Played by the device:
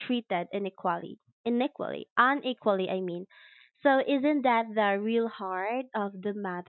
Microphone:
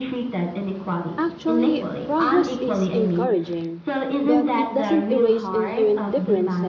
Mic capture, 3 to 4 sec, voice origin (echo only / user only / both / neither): both